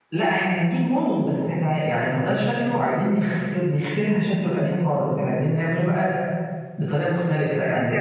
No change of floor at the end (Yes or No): No